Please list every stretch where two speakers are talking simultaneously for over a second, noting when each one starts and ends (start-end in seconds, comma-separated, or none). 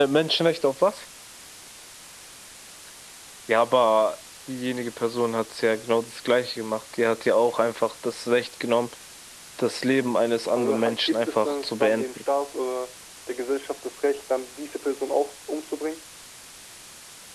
10.6-12.1